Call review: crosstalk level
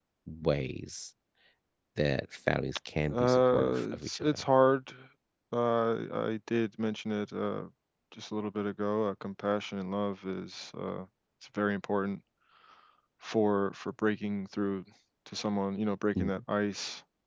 present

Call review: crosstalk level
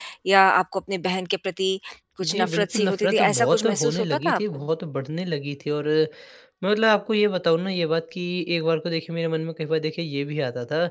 present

